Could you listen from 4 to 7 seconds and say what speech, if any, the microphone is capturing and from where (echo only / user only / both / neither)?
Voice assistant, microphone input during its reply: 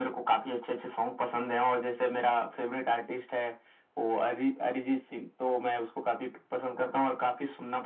echo only